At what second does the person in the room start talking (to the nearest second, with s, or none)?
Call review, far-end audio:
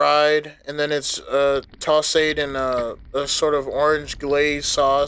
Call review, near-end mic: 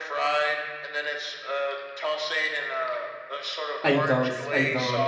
4 s